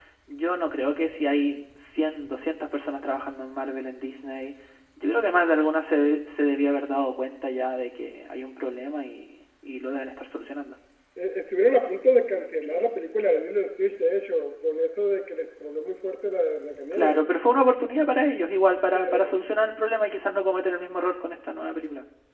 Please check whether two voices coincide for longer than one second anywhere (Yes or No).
No